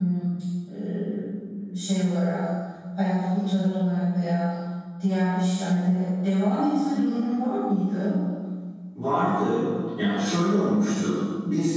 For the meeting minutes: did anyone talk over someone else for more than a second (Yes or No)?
No